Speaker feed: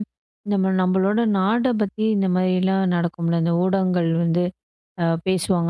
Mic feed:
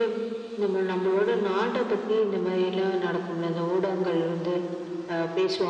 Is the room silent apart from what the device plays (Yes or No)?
Yes